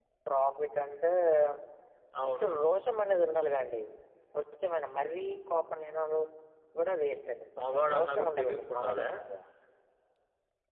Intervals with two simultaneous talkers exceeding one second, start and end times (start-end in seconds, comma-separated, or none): 7.6-9.1